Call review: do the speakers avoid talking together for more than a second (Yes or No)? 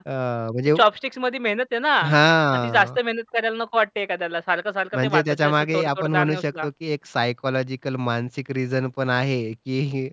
No